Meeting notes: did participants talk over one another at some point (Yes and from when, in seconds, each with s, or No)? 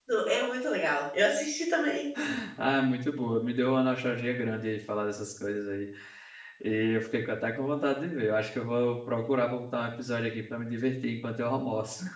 No